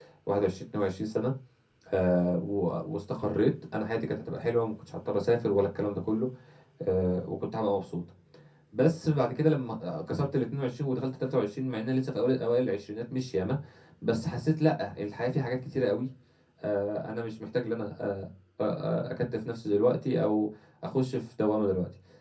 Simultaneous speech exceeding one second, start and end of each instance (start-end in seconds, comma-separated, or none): none